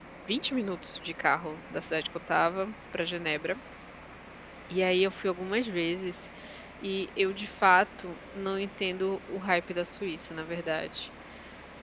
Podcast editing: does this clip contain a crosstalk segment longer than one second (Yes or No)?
No